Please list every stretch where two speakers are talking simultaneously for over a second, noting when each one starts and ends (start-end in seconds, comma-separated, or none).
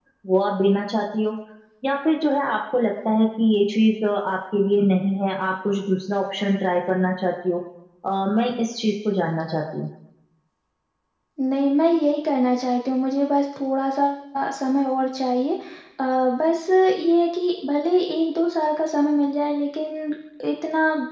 none